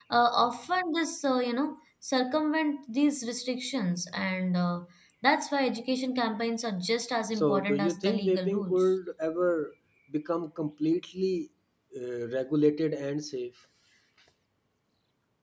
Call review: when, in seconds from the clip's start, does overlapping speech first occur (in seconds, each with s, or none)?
7.3 s